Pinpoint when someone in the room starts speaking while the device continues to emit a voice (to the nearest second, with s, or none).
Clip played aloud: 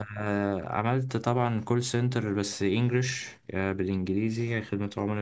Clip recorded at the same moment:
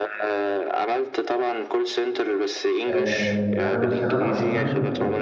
3 s